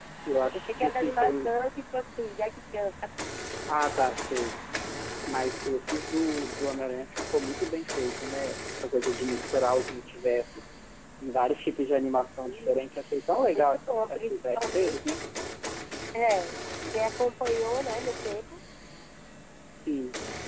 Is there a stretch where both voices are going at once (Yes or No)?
Yes